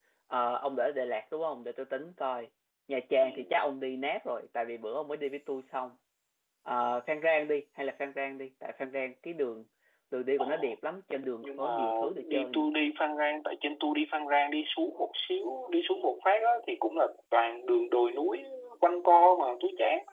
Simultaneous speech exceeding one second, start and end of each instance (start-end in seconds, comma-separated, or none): 11.4-12.7